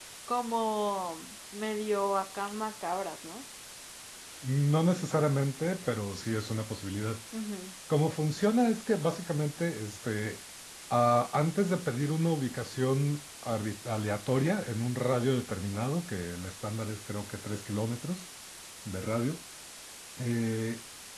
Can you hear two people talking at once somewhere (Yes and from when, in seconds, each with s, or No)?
No